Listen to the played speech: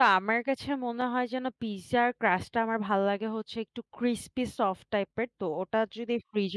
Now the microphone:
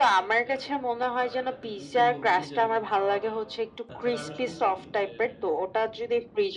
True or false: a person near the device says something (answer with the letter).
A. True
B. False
A